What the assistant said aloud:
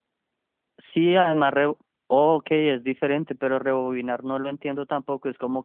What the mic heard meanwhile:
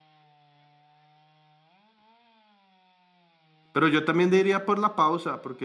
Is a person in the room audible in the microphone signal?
Yes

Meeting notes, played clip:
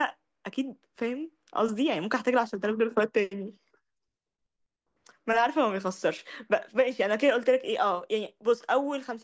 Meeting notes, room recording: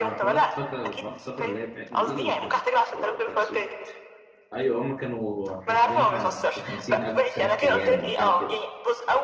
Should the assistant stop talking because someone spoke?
Yes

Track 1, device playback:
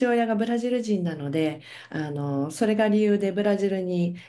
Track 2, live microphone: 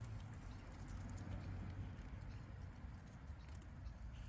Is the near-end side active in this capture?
No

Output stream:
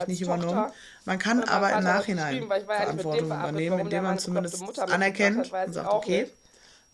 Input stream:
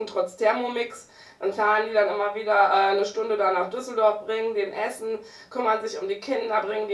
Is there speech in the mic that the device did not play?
Yes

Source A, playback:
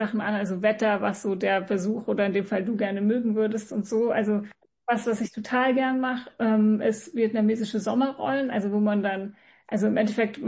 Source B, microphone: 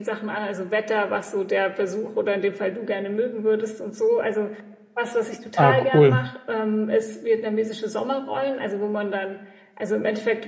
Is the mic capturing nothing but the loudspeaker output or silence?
No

